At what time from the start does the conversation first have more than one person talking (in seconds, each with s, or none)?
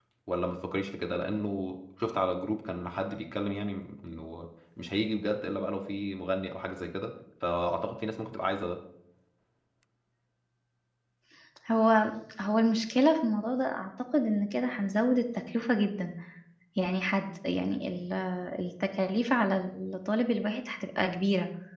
none